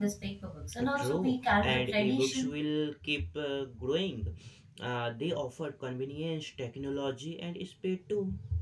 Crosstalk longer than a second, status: present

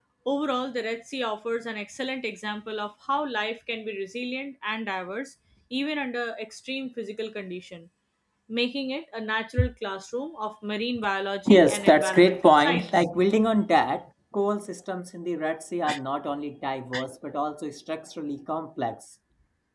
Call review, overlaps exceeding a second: present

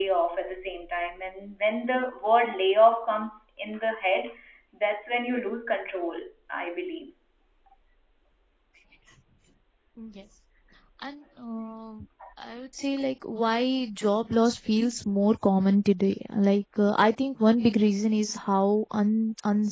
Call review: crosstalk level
none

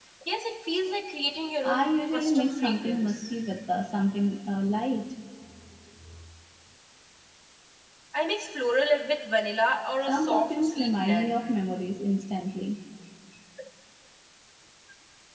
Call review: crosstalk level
present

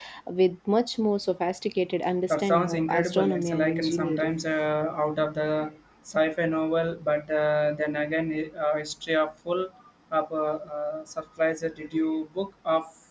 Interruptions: present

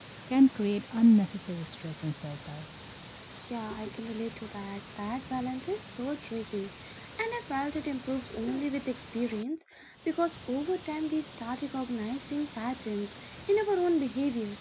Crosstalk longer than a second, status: none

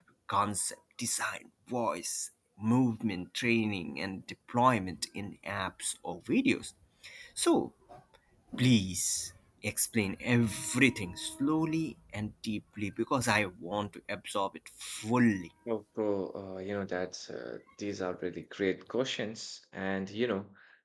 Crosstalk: none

